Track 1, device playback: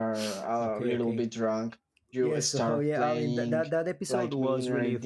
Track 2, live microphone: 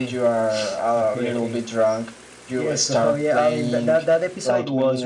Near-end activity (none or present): none